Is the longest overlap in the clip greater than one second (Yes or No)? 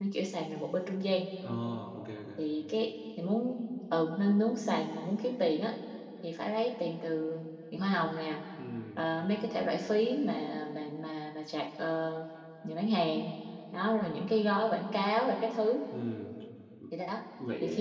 No